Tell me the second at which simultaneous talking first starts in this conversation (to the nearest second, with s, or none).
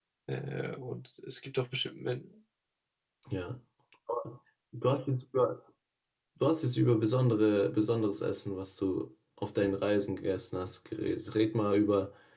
none